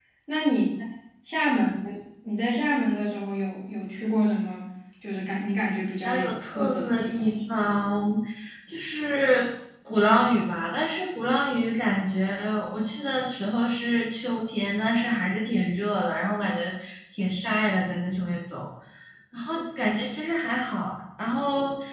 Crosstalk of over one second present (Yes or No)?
Yes